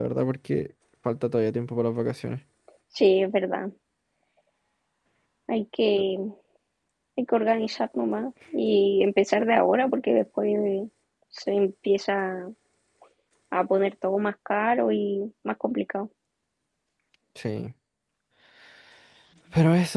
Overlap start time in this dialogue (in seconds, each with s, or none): none